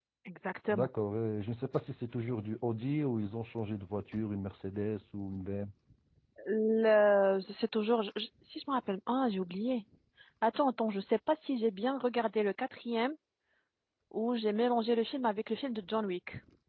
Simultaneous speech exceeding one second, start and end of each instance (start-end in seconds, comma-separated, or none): none